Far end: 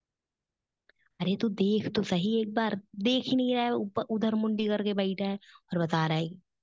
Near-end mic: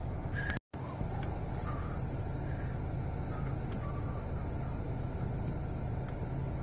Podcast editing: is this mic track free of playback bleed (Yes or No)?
Yes